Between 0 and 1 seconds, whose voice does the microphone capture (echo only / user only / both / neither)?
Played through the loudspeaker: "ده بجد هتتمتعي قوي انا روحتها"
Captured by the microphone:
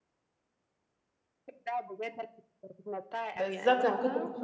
neither